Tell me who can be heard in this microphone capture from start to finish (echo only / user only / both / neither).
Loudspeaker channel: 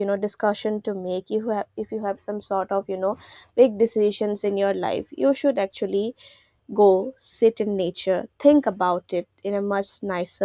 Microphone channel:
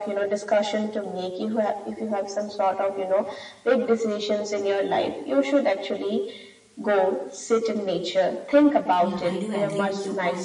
both